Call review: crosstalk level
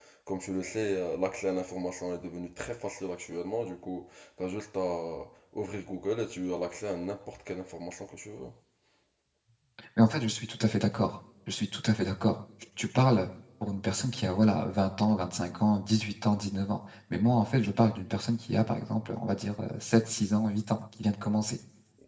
none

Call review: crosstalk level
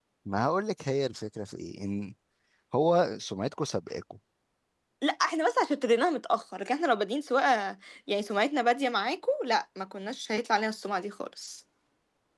none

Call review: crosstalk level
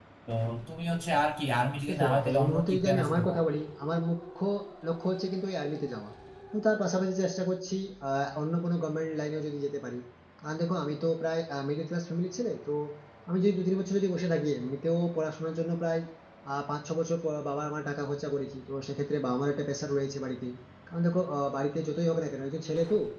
present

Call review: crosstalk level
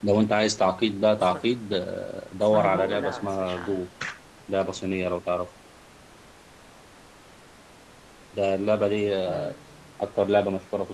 present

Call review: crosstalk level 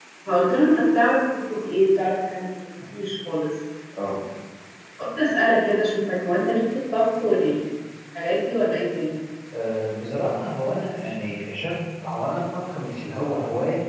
none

